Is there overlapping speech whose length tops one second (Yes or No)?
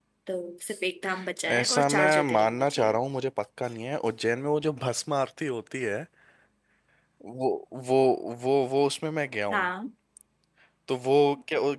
Yes